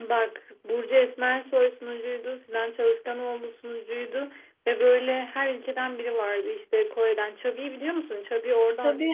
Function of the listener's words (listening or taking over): taking over